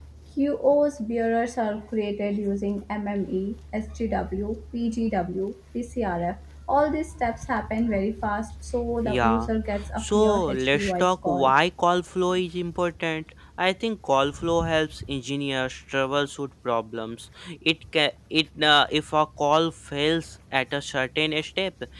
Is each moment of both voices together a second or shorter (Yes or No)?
No